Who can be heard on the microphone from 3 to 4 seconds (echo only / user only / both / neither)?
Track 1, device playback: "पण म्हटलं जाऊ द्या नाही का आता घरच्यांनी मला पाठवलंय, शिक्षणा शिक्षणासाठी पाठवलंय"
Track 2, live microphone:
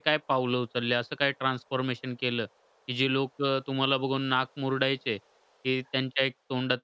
user only